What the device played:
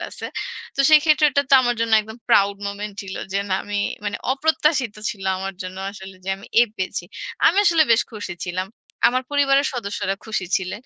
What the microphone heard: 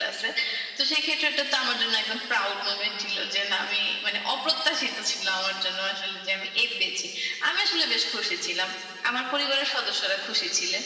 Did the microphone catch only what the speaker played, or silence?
Yes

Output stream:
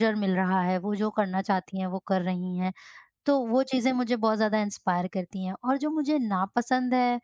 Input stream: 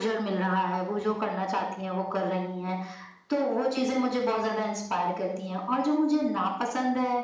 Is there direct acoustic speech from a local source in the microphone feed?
No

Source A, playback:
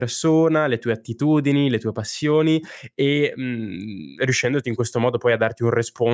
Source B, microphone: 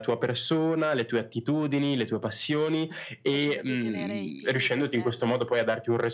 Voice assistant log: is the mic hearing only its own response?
No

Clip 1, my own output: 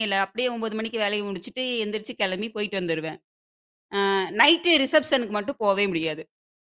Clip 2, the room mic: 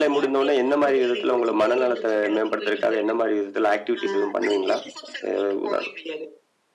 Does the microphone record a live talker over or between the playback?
Yes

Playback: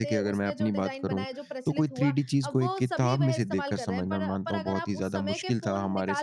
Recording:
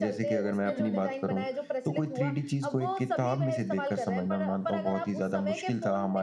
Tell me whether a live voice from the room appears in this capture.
Yes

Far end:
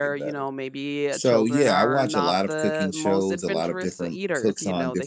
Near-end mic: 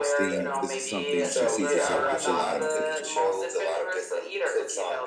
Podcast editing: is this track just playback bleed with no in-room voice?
No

